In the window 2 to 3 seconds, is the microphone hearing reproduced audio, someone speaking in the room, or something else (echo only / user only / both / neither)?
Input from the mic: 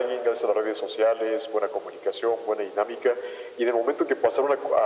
echo only